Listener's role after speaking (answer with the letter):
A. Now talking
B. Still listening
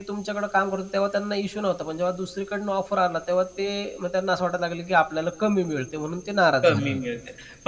A